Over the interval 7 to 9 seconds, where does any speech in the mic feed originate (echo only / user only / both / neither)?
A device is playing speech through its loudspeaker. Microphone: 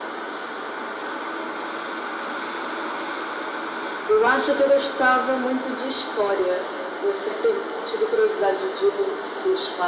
echo only